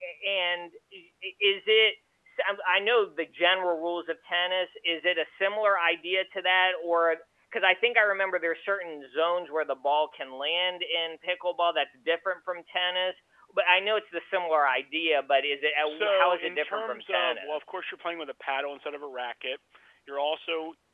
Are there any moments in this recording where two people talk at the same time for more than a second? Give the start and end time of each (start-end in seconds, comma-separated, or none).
15.8-17.7